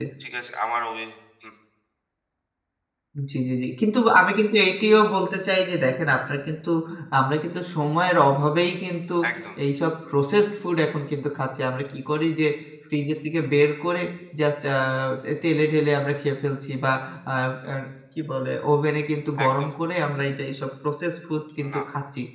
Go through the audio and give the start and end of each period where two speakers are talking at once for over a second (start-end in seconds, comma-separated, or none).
none